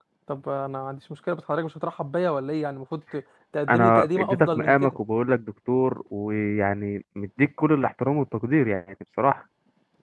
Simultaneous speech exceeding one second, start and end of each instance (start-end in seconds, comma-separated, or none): 3.7-5.0